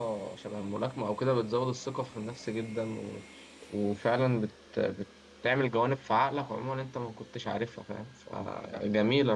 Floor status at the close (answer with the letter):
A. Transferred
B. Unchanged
B